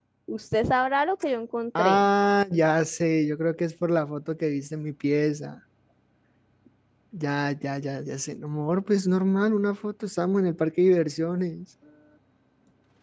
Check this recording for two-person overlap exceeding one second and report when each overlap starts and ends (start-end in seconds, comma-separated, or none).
none